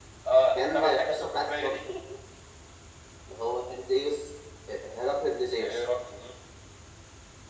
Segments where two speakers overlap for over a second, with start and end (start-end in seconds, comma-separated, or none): 0.6-1.8